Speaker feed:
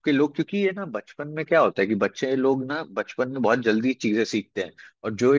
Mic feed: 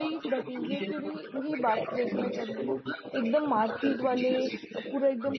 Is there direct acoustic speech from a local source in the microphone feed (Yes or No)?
Yes